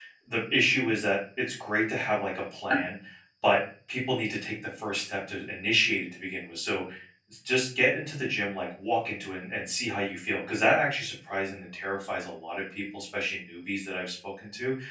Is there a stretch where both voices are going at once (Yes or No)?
No